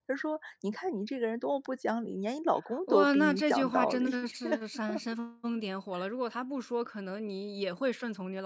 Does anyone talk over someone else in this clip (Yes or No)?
Yes